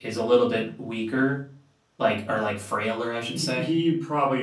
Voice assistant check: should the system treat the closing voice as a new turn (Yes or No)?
Yes